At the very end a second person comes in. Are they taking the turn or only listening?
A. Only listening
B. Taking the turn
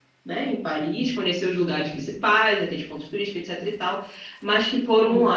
A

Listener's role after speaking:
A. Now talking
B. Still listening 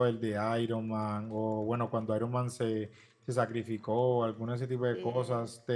B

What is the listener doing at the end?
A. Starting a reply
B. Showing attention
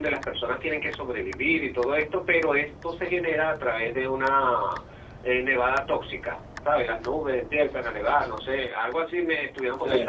B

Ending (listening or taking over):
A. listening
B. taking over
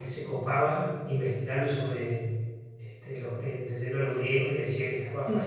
A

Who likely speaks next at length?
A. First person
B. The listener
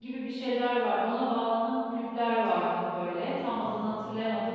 A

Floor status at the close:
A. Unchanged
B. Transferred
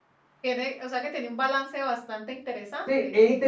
B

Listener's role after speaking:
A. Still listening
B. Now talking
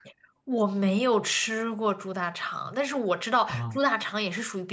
A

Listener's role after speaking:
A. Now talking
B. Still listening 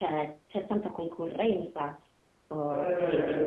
A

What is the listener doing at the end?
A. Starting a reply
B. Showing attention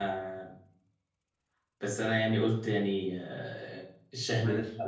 B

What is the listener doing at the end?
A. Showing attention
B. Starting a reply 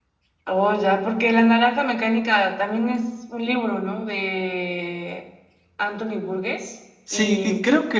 B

